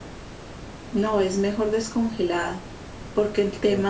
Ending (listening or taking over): listening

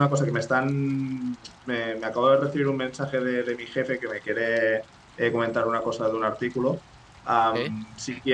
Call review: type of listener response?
listening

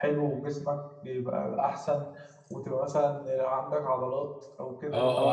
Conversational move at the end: taking over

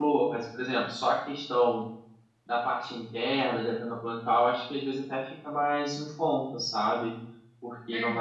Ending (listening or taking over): listening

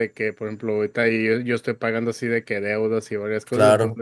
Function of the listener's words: listening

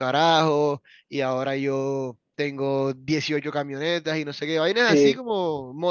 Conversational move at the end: listening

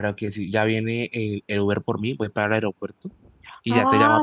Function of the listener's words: taking over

